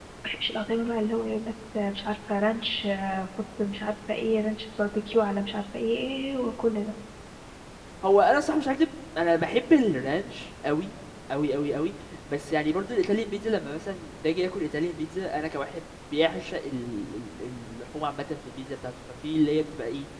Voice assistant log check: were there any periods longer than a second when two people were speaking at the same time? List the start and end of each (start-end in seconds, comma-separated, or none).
none